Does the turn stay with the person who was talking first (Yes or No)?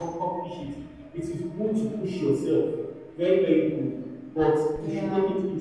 Yes